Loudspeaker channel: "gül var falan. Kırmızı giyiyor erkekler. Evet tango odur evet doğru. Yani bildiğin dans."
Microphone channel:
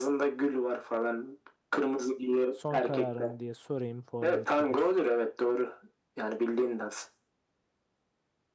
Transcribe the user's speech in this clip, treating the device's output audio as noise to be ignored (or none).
Son kararımı diye sorayım formalitedir.